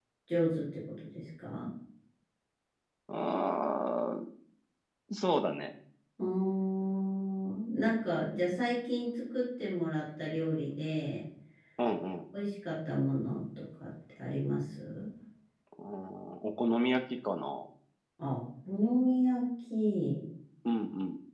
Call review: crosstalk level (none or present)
none